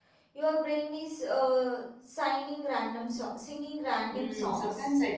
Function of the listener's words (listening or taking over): taking over